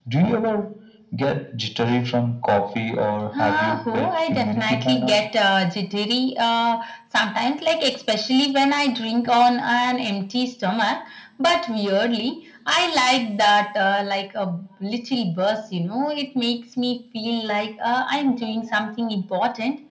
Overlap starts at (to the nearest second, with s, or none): 3 s